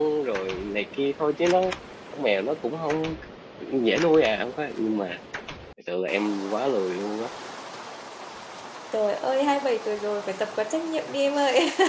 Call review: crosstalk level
none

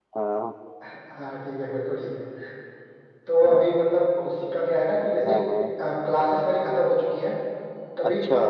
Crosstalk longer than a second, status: none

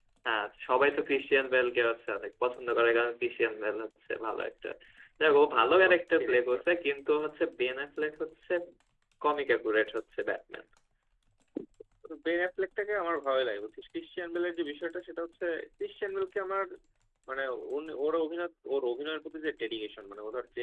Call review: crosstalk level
present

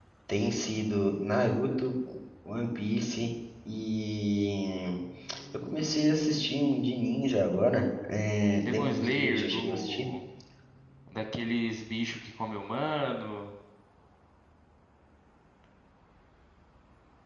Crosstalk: present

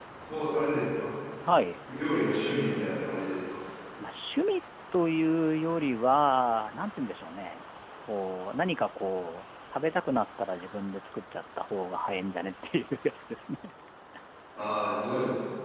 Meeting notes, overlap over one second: none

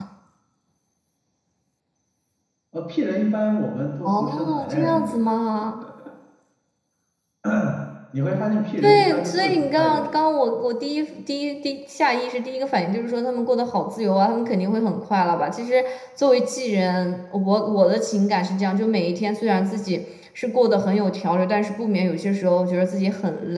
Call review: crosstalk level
present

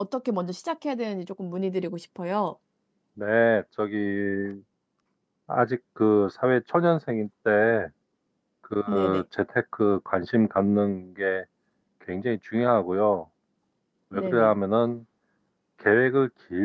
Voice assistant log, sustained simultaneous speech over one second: none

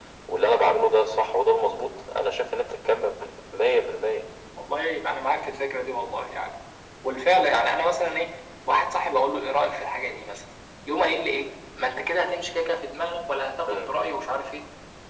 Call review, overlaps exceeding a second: none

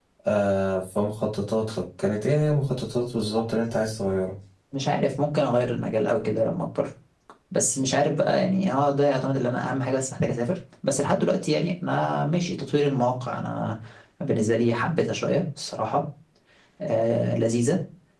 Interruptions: none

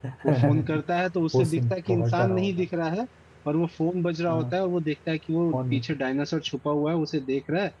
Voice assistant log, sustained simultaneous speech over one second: present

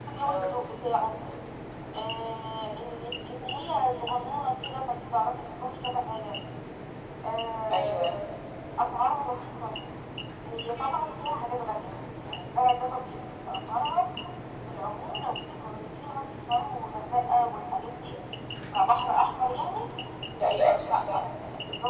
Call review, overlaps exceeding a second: none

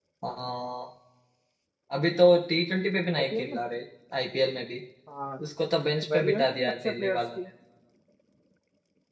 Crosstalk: present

